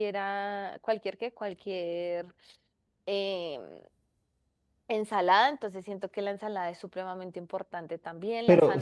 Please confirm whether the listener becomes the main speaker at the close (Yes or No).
Yes